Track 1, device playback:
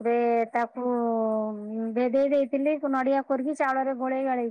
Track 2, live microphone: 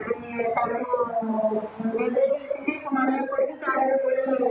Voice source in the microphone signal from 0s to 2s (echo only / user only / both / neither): echo only